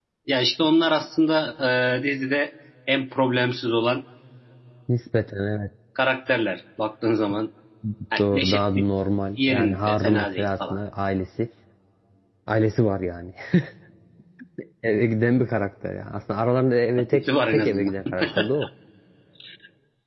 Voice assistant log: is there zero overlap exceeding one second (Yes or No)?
No